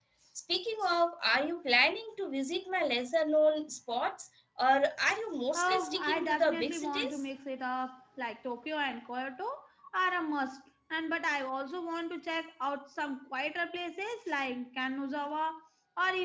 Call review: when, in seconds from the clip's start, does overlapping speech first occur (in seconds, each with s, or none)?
5.5 s